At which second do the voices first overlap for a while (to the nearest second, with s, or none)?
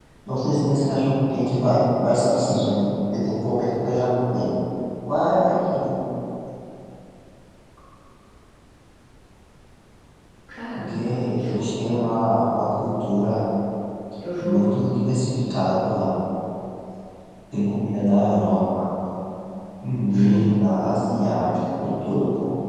11 s